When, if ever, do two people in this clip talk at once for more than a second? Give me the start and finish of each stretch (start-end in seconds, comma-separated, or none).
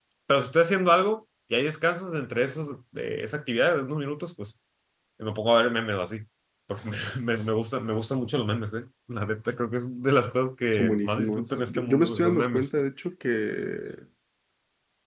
10.7-12.8